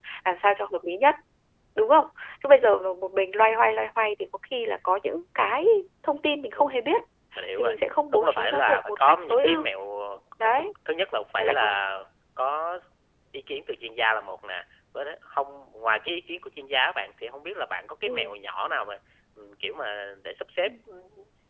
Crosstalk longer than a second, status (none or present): present